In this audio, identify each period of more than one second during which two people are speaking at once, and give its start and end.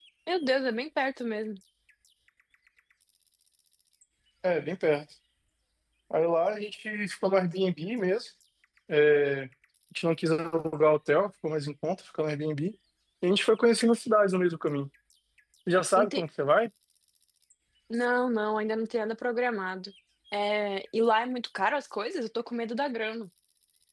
none

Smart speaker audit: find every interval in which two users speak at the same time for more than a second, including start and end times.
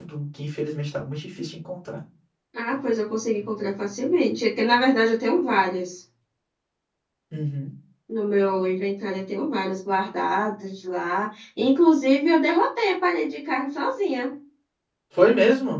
none

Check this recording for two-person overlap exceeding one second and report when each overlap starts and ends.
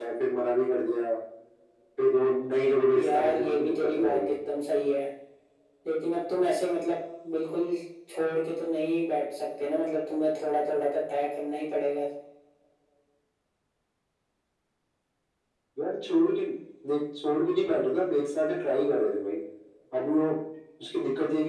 3.0-4.4

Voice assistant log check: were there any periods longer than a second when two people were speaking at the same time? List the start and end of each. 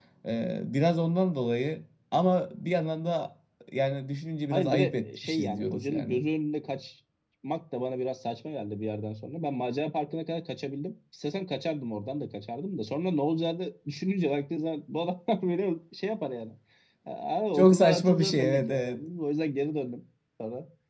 4.5-6.2, 17.5-19.0

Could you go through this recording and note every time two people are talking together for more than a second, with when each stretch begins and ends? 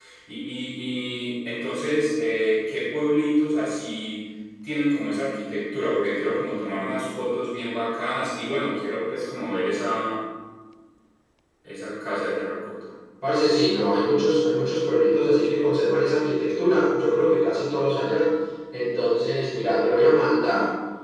none

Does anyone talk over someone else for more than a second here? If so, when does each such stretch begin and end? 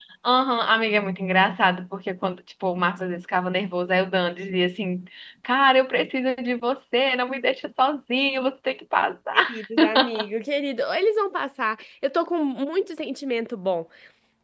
none

